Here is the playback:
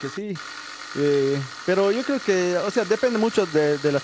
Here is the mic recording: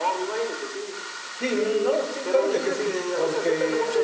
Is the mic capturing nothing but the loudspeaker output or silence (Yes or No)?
No